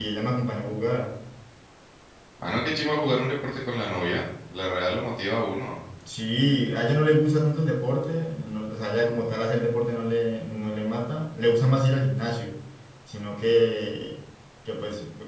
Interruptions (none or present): none